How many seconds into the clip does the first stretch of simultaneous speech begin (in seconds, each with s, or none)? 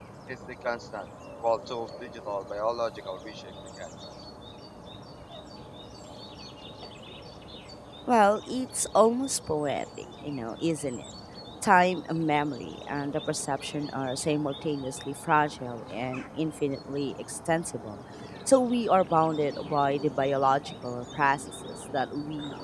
none